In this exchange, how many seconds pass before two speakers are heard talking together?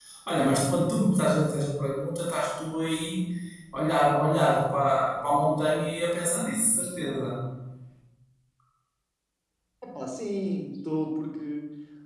none

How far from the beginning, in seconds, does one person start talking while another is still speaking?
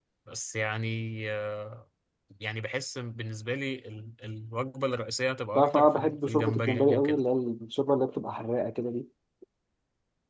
5.6 s

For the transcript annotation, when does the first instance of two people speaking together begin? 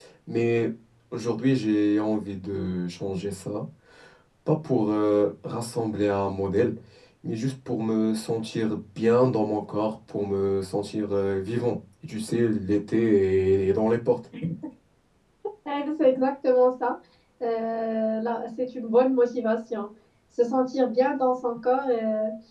none

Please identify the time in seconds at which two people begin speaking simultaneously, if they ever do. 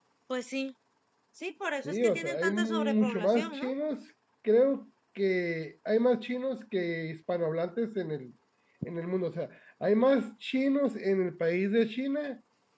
1.8 s

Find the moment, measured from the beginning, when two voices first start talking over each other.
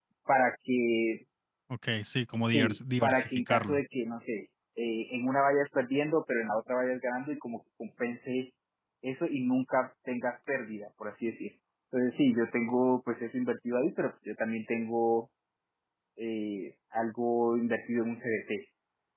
2.5 s

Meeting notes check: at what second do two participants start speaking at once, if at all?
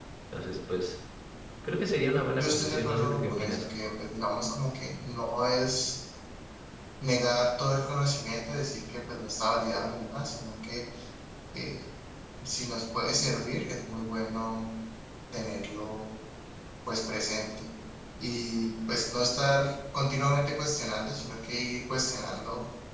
2.4 s

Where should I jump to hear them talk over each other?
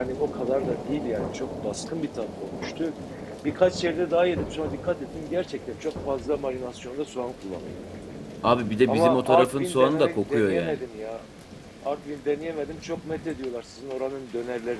8.8 s

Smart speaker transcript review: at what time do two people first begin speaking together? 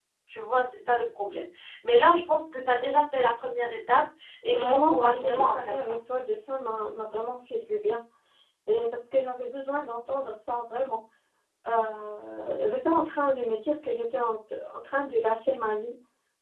4.5 s

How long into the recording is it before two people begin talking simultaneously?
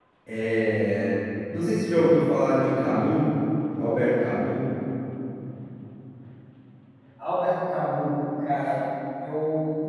none

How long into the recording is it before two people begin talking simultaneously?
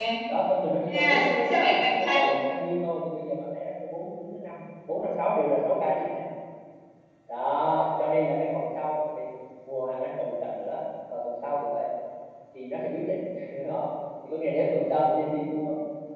0.9 s

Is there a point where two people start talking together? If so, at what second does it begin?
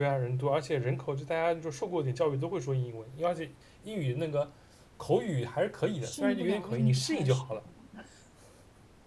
5.8 s

